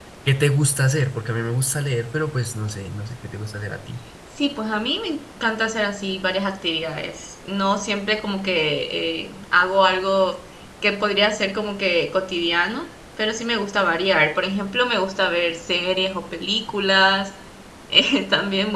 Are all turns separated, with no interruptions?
Yes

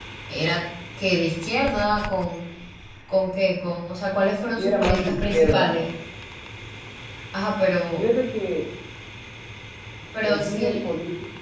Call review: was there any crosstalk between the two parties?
Yes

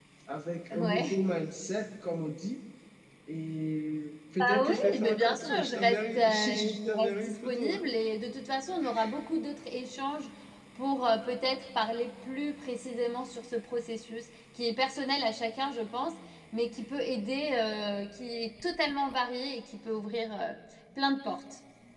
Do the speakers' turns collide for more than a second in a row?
Yes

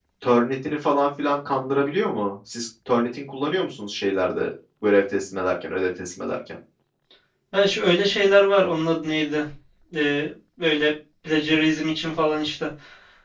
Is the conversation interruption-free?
Yes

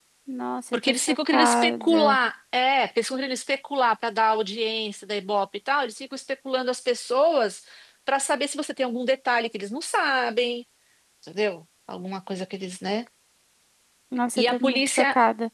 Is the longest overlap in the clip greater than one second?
Yes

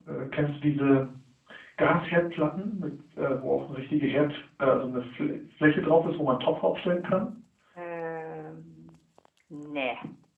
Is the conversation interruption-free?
Yes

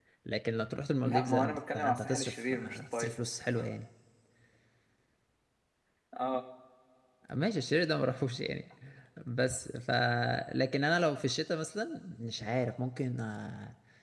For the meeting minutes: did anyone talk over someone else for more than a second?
Yes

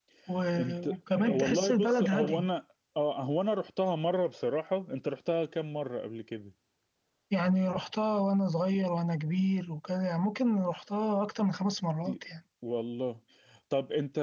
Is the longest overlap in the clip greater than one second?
Yes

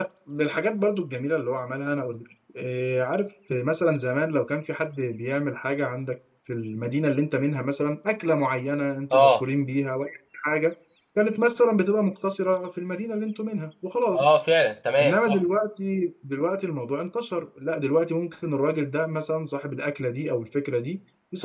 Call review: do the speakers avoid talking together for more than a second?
Yes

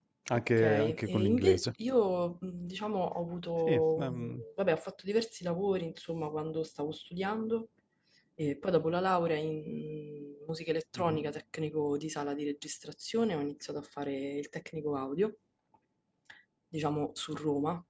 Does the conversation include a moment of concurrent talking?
Yes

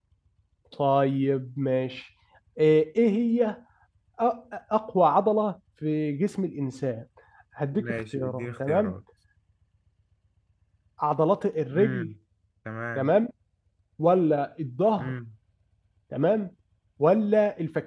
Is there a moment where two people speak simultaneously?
Yes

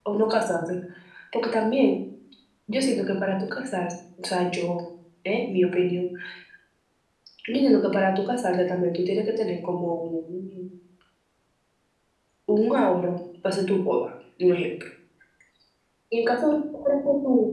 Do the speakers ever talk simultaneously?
No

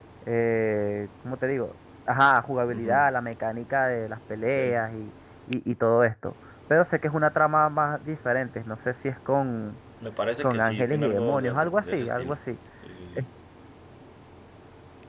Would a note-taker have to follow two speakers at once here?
Yes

